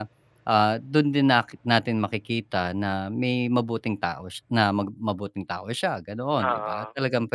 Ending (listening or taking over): listening